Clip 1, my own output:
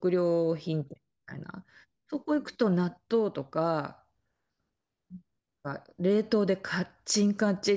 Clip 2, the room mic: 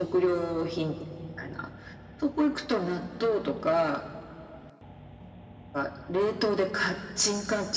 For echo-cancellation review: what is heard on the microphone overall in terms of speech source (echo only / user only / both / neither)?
echo only